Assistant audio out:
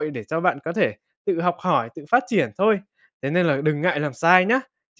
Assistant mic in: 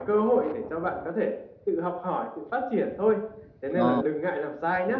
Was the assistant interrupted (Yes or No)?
Yes